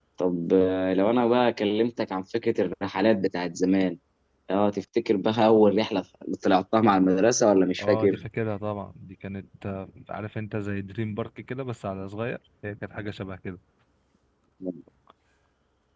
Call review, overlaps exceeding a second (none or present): none